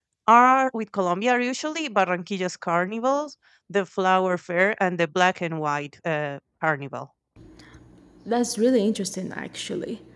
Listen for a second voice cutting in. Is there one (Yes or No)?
No